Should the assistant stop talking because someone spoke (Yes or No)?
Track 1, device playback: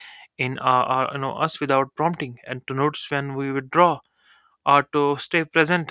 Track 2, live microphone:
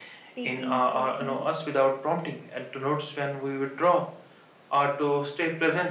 Yes